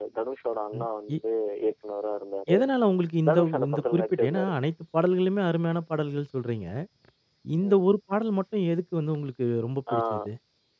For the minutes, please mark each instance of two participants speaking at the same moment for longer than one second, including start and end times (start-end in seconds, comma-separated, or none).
3.3-4.5